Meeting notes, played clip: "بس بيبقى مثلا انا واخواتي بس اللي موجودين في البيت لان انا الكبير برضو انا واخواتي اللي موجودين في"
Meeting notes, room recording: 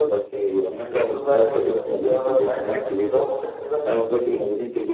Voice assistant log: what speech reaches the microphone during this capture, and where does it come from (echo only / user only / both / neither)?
both